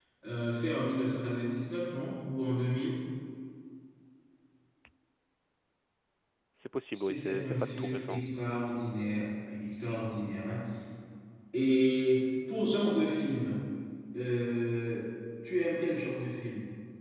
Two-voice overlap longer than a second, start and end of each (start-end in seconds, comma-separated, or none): 6.9-8.2